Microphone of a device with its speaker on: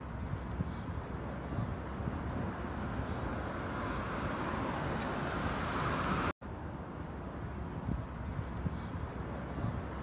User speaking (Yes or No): No